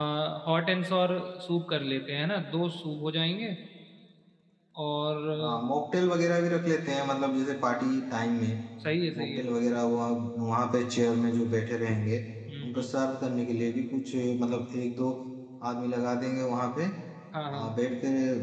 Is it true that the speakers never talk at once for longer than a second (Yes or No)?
Yes